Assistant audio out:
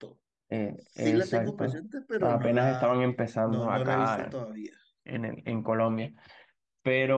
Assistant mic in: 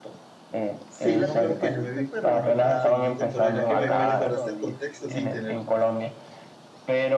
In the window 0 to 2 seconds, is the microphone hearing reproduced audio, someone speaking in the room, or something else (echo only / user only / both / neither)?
both